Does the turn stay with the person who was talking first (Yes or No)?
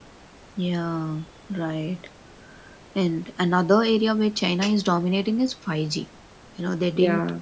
Yes